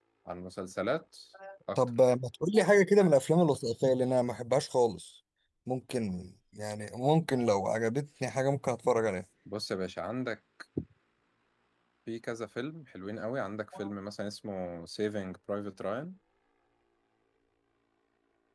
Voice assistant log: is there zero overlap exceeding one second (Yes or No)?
Yes